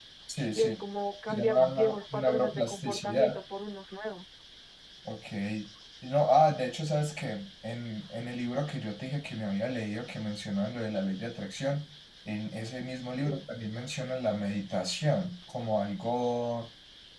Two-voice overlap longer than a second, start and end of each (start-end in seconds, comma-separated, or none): 1.3-3.4